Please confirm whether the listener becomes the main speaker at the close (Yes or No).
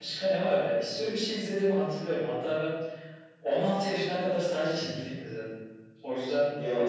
Yes